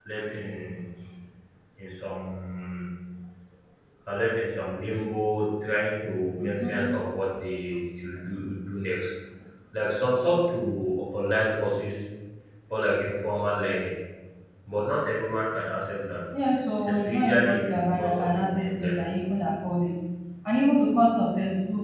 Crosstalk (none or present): present